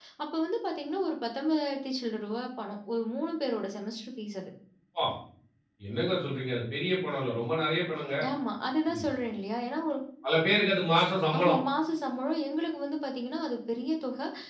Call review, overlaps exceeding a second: none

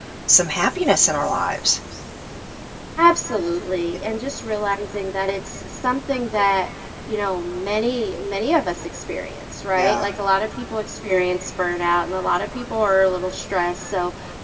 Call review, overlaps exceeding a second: none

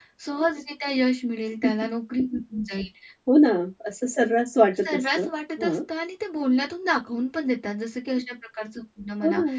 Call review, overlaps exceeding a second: none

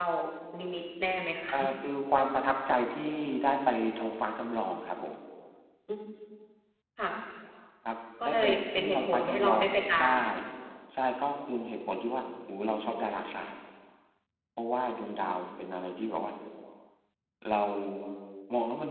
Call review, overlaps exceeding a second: present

